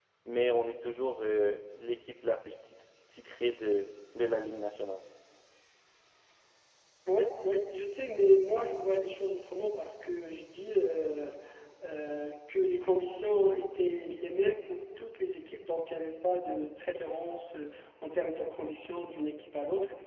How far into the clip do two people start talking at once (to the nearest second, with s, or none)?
none